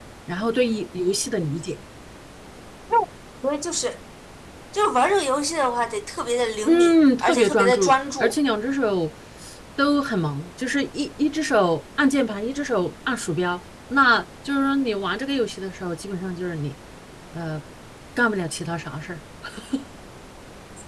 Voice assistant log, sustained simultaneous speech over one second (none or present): present